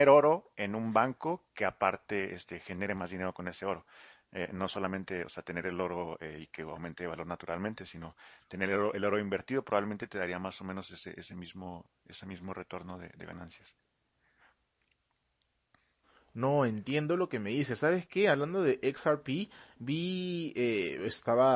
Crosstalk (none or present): none